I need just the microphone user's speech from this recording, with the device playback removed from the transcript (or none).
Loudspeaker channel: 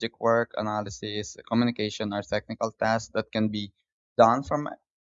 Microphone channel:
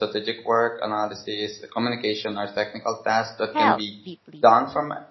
health deeply